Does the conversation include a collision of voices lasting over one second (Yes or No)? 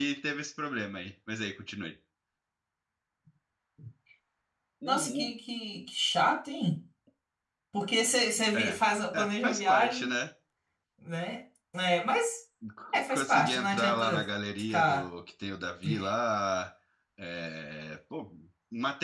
Yes